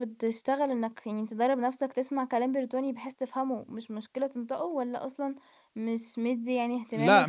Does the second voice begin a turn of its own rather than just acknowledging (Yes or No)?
Yes